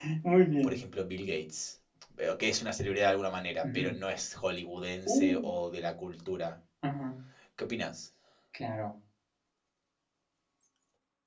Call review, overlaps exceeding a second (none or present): none